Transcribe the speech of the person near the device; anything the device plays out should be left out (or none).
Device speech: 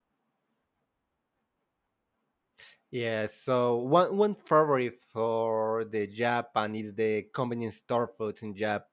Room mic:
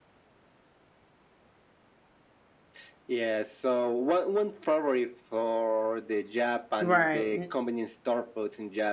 right.